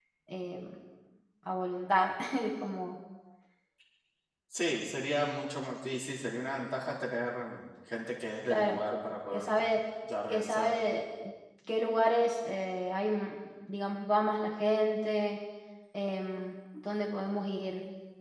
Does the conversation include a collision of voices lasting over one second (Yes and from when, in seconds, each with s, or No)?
No